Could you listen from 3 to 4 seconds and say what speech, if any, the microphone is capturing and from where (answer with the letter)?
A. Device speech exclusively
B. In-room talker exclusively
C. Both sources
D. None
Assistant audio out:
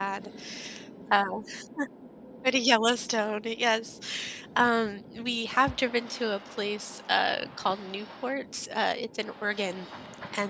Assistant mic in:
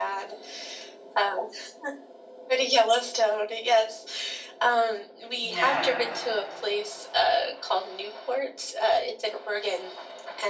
A